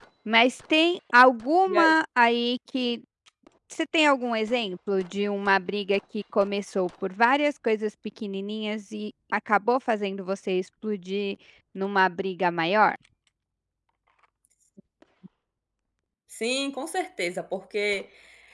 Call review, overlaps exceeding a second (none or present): none